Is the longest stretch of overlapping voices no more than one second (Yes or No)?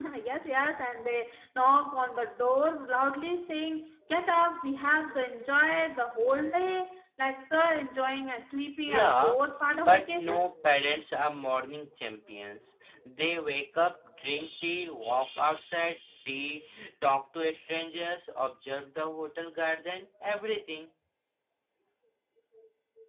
No